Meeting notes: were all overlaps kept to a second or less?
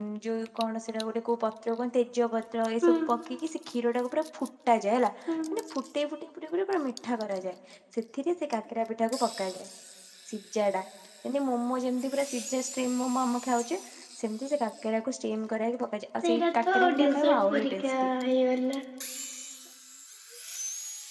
No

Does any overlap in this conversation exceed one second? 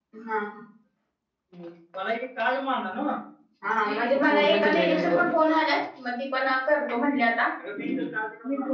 Yes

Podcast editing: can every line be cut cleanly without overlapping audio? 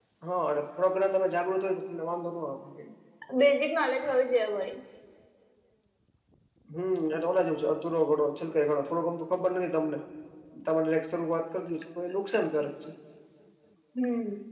Yes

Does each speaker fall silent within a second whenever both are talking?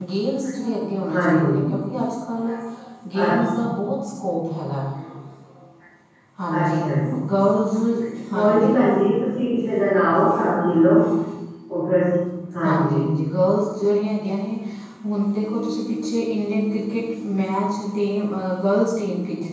Yes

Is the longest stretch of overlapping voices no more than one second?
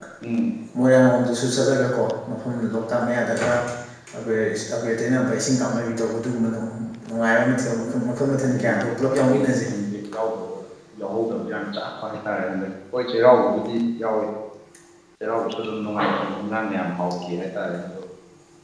No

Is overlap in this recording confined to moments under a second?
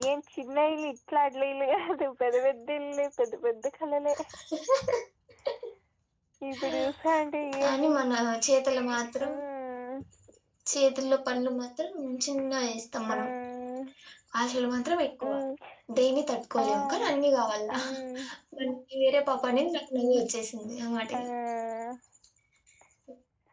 Yes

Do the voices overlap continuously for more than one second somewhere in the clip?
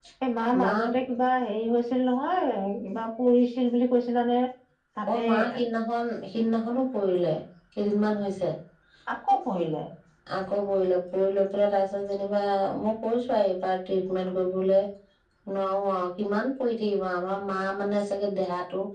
No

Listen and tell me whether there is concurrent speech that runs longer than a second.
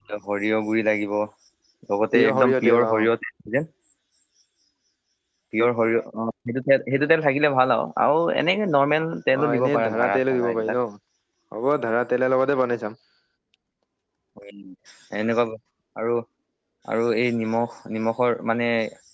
Yes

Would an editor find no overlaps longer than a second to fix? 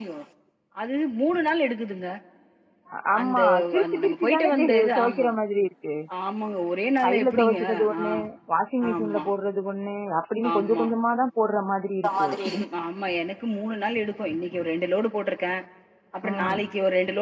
No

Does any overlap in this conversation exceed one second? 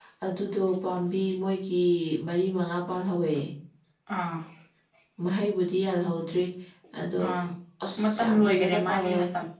Yes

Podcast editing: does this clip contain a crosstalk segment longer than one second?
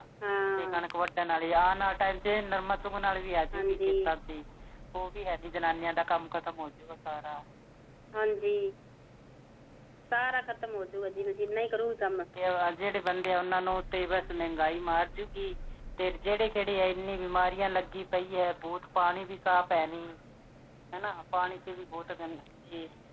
No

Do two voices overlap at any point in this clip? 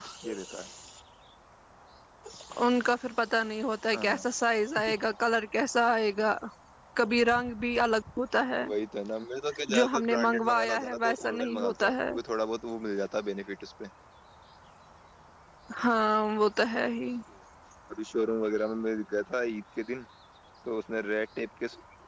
Yes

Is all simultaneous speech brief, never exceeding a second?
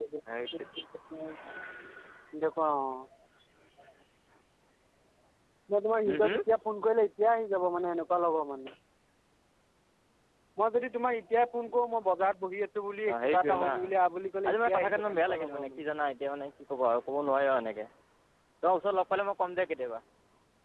No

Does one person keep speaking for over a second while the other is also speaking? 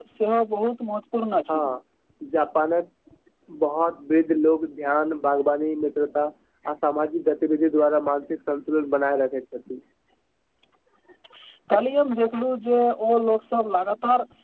No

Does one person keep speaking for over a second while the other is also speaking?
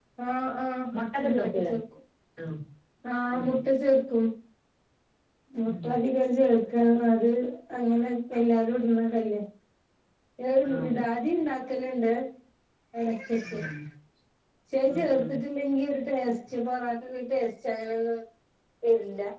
No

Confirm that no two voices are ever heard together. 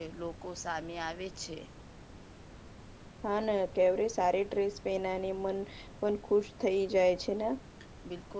Yes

